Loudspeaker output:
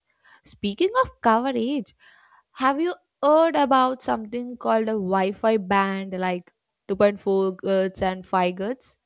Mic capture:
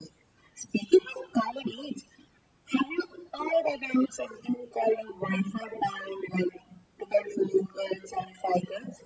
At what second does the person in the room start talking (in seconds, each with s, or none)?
none